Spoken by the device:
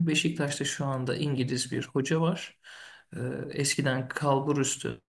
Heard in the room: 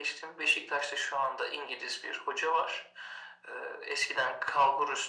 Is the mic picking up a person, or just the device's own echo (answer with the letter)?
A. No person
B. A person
A